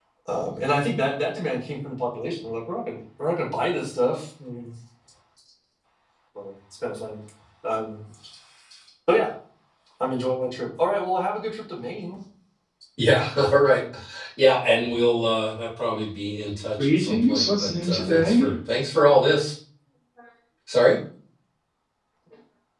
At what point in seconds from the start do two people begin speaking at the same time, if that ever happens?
17 s

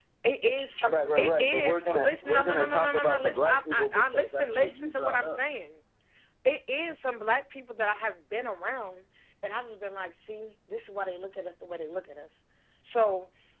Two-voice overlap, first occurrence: 1 s

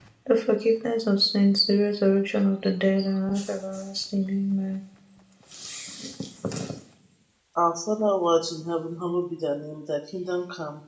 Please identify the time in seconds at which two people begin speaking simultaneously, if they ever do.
none

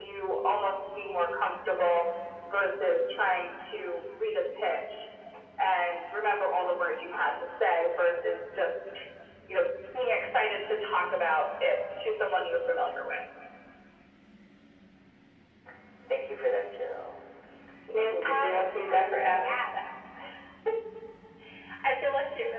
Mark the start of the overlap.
18 s

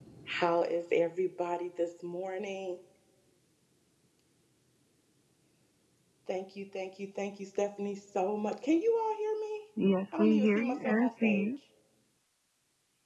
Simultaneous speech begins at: 10 s

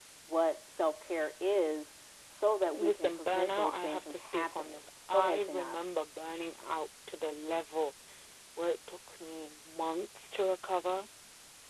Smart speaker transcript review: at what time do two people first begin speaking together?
3 s

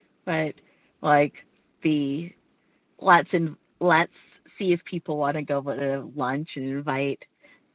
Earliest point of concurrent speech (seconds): none

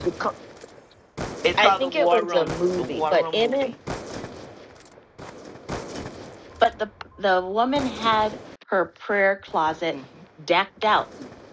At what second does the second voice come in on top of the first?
2 s

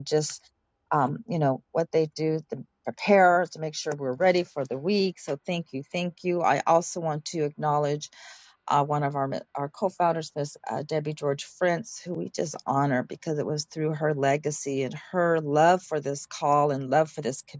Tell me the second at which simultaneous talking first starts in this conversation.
none

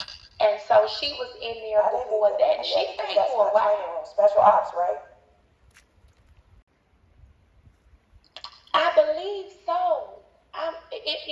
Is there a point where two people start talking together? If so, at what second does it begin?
2 s

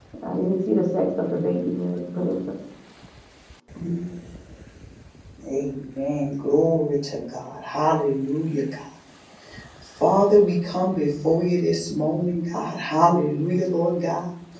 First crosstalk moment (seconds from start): none

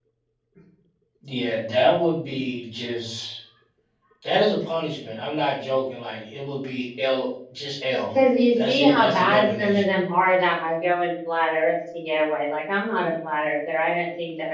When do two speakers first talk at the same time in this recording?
9 s

